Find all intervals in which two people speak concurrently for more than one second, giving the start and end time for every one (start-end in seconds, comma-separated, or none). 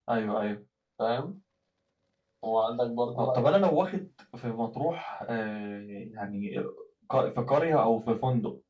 none